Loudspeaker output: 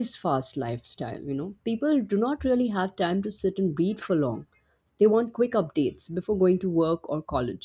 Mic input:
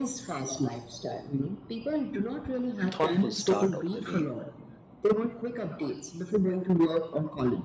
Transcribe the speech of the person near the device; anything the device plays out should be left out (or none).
thoughtful start of the day.